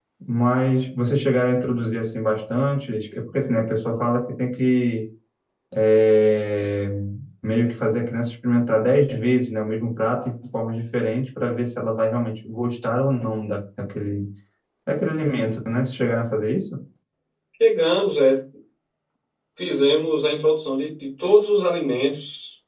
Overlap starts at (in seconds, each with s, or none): none